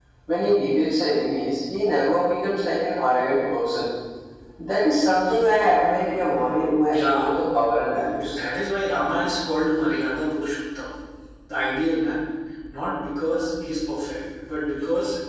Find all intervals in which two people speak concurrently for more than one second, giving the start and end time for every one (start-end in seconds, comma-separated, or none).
none